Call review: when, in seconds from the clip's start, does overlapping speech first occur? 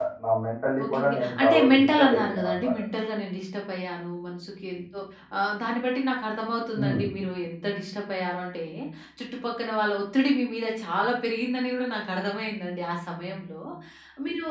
0.8 s

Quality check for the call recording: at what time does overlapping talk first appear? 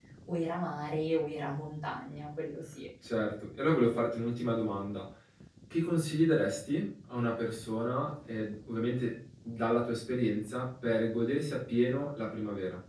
none

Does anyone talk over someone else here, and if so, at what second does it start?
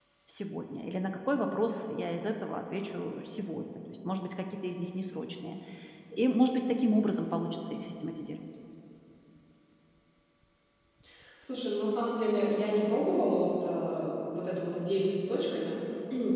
none

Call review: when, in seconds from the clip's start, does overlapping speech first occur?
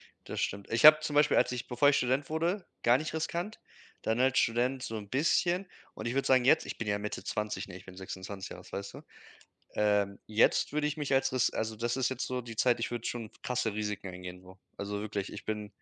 none

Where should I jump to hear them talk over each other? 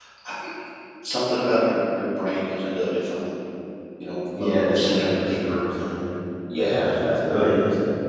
4.4 s

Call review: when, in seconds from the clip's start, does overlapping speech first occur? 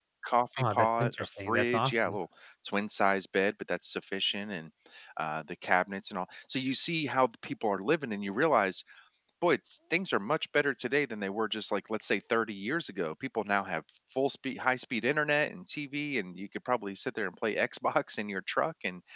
0.7 s

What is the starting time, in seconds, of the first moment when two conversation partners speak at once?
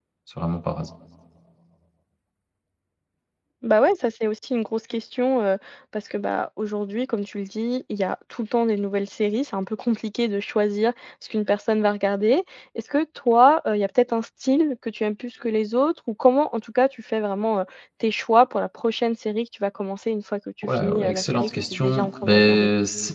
20.6 s

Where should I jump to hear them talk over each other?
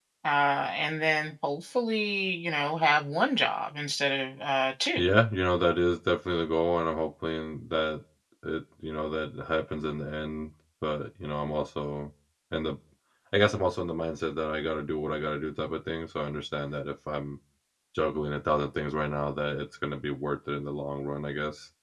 none

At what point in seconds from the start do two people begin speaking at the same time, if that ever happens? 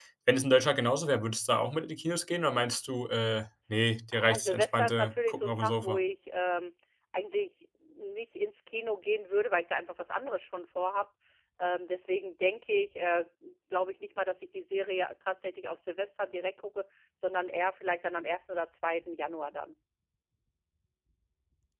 4.1 s

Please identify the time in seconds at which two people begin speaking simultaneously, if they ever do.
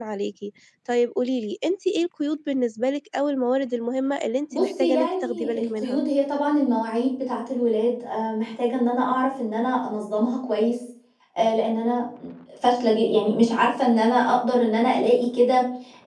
4.5 s

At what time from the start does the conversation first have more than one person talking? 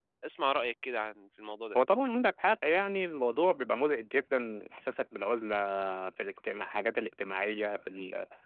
none

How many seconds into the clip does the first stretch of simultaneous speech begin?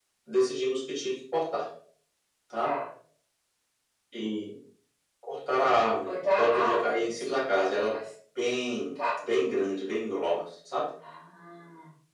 6.1 s

